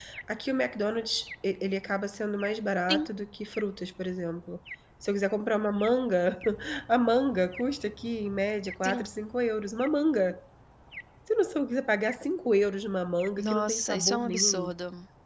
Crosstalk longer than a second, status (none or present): present